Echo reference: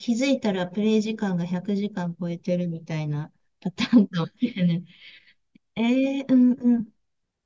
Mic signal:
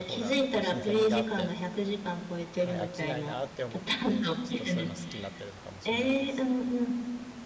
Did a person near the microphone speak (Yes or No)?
Yes